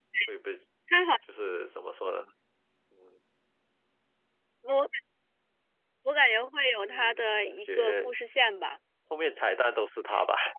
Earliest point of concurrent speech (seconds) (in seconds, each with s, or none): 6.7 s